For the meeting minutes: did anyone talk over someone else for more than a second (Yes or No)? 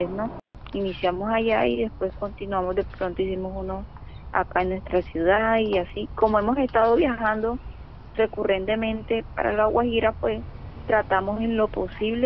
No